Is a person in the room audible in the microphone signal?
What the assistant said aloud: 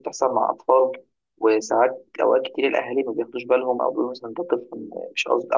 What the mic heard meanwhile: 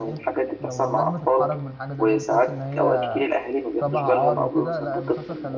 Yes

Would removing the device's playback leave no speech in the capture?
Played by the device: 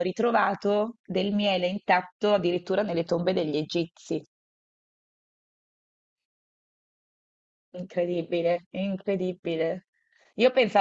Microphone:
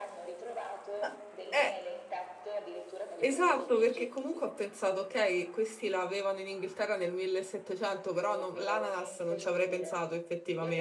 No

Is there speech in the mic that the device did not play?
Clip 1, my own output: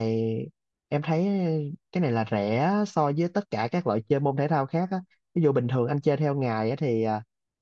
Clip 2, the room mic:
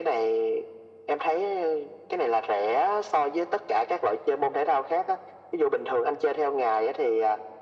No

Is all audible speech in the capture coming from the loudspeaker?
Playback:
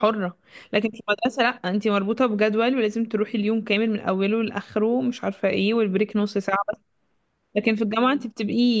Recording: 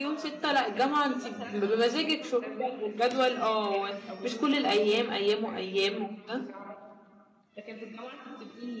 No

